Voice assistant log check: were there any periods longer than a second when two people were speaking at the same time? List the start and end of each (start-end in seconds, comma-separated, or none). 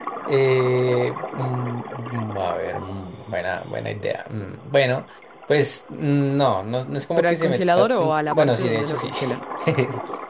7.2-9.1